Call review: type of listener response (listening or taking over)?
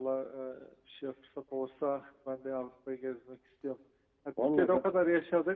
listening